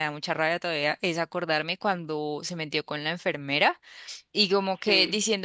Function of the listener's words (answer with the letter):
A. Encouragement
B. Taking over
A